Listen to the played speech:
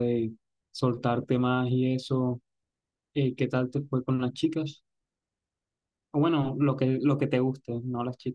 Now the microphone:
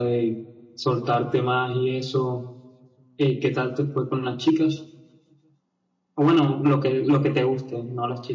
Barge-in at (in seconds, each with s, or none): none